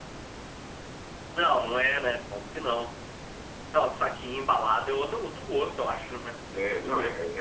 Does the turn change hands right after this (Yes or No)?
Yes